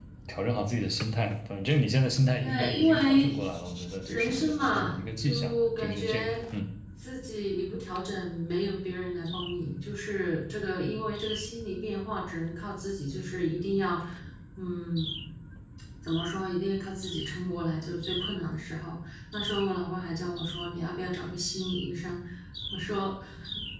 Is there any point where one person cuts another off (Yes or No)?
Yes